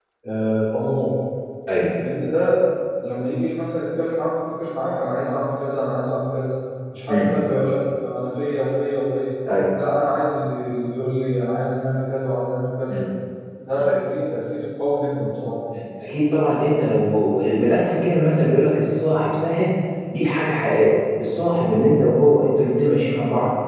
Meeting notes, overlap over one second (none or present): none